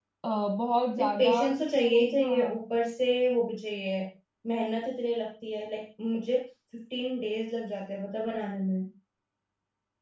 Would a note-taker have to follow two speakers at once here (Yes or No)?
Yes